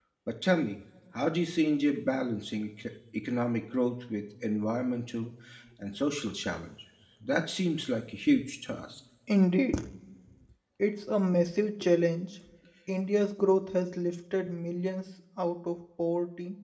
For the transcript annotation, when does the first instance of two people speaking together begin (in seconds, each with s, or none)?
none